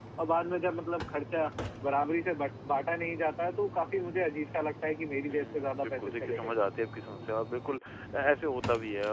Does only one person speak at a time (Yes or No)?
No